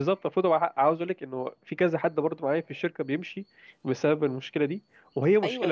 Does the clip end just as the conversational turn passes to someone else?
Yes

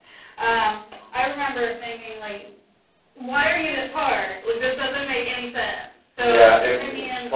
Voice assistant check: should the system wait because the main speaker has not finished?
No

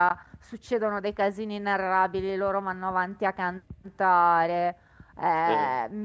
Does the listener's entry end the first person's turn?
No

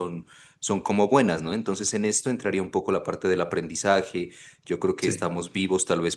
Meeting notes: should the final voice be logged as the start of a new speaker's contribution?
No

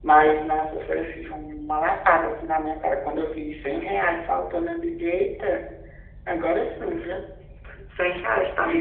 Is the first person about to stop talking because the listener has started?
Yes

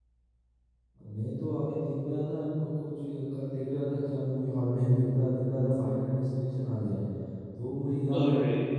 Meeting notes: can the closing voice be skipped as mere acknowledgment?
Yes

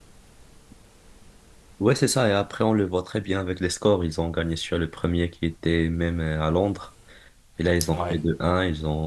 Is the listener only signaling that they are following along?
Yes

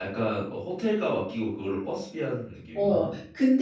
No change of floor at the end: No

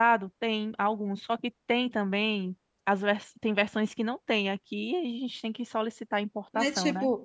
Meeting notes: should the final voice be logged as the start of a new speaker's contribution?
Yes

